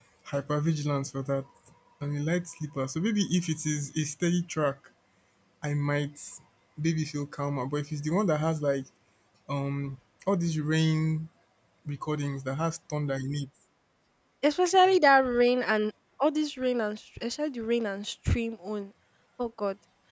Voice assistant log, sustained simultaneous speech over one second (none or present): none